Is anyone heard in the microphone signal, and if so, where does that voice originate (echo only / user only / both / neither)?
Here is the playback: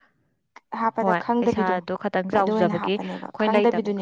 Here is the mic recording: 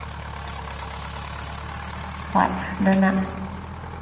user only